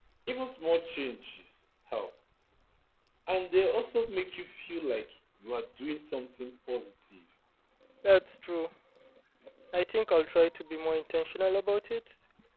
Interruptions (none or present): none